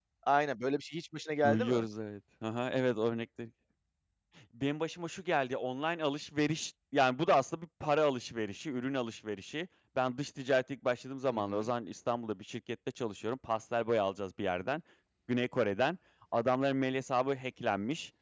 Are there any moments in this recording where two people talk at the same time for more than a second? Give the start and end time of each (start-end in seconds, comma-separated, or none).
none